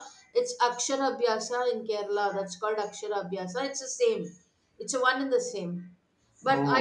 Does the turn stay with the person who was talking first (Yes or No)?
Yes